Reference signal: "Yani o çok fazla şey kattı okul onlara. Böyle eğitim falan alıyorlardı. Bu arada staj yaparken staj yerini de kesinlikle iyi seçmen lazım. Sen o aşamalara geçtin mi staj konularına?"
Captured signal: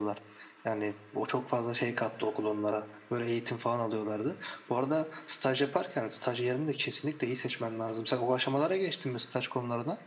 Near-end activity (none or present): none